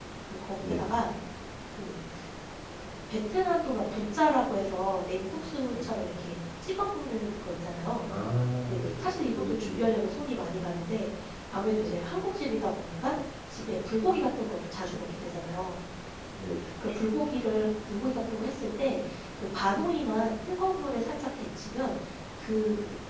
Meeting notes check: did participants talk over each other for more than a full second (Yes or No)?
Yes